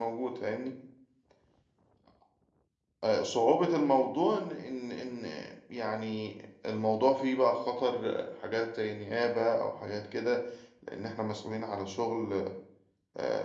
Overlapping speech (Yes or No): No